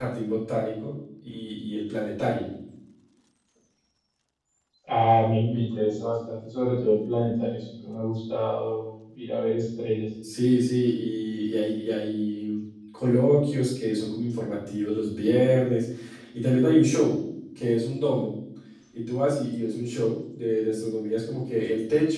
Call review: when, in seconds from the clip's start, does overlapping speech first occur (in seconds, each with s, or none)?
none